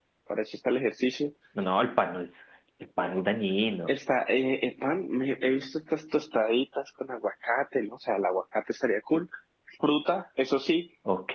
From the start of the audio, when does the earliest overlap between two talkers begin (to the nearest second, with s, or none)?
none